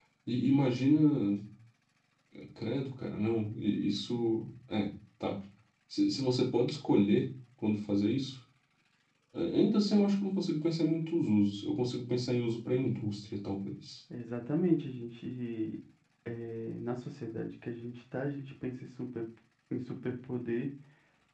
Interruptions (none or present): none